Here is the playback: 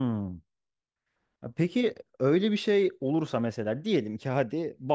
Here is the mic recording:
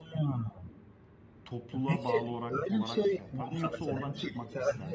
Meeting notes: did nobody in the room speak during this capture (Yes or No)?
No